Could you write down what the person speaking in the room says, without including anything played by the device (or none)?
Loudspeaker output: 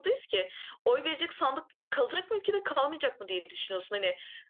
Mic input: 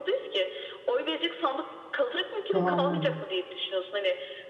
Kıvamına göre.